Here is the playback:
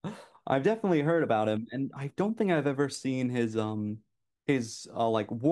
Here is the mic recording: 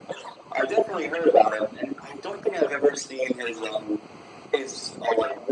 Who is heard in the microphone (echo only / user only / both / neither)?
echo only